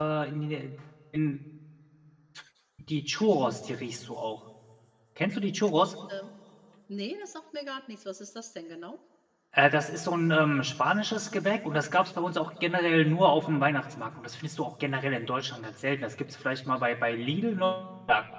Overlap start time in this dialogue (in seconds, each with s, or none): none